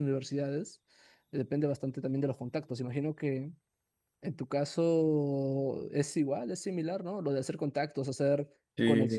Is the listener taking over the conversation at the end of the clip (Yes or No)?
No